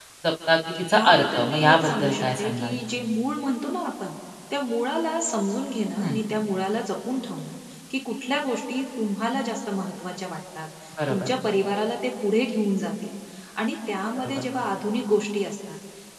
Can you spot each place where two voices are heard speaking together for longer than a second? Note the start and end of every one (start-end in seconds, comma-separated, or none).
0.9-2.8